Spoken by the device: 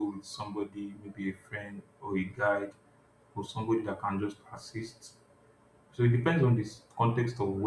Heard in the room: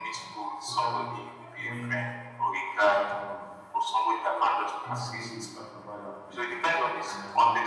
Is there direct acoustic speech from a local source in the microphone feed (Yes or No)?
Yes